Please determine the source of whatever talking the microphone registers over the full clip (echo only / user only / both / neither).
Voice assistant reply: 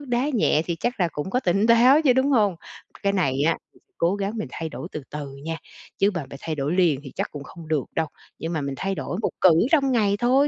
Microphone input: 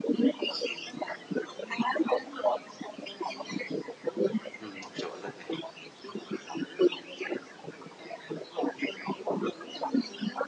both